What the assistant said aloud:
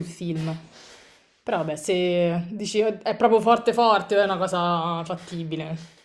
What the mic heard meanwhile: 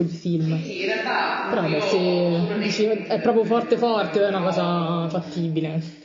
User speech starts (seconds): 0.4 s

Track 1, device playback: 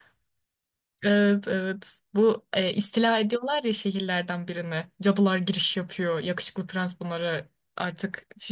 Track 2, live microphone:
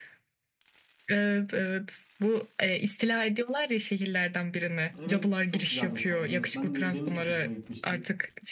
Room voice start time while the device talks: 5.0 s

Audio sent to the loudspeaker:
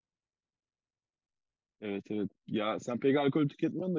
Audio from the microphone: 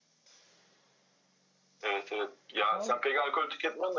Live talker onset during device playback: 2.7 s

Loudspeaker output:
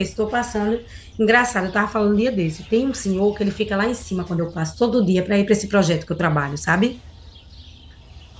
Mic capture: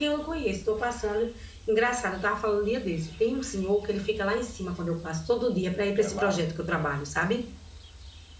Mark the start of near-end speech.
5.9 s

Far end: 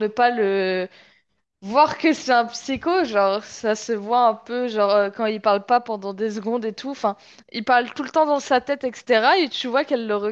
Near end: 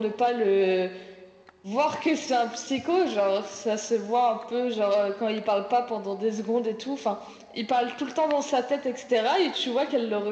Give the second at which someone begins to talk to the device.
none

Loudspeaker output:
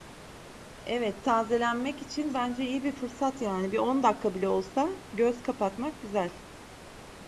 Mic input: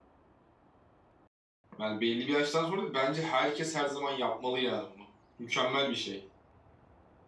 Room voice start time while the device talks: 1.8 s

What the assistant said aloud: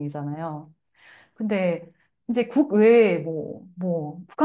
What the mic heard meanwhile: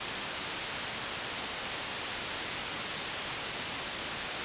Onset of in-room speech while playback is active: none

